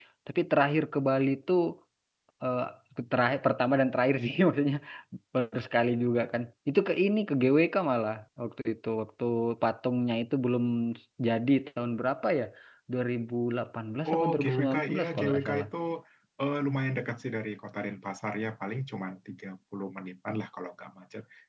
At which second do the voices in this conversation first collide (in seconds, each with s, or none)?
14.0 s